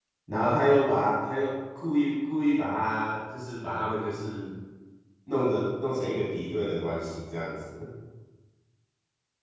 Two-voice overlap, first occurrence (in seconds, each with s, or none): none